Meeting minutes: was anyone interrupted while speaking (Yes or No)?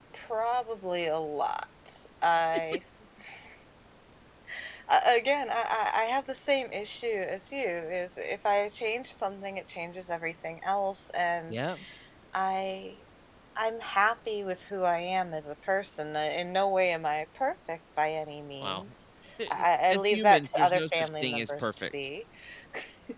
Yes